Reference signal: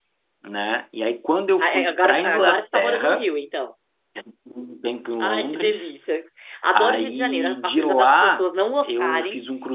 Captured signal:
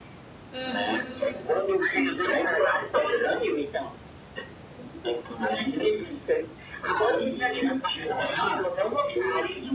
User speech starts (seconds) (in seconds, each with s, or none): 0.5 s